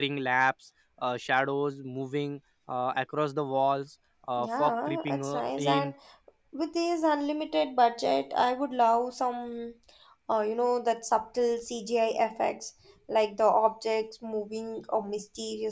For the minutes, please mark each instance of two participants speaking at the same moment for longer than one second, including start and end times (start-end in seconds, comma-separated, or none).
4.4-5.9